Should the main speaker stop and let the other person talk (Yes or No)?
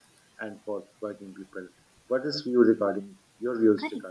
Yes